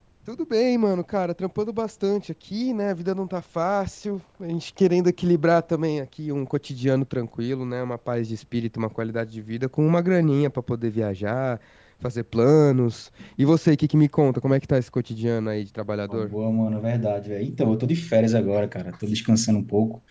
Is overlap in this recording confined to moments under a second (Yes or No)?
Yes